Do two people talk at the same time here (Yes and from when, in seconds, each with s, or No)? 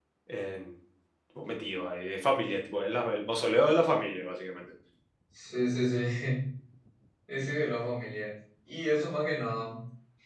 No